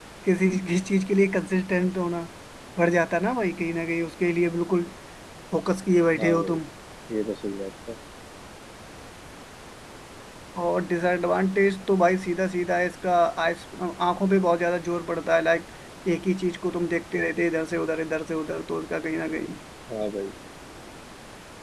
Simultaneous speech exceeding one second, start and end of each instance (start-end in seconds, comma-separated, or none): none